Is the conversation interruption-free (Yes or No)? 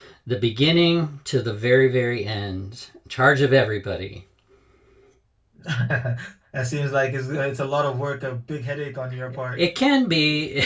Yes